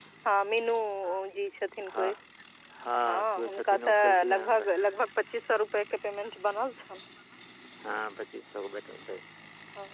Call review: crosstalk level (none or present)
present